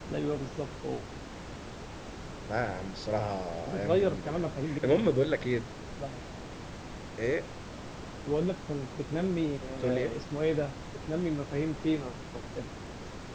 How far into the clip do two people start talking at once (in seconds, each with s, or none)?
3.8 s